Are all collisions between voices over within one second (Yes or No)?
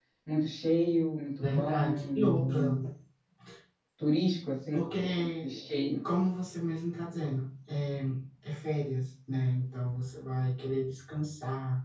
No